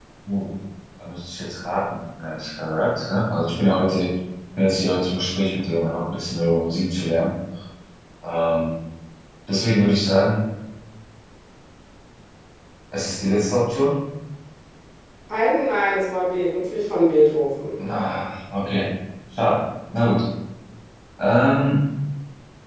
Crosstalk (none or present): none